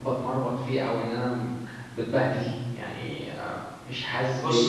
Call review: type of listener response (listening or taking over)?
taking over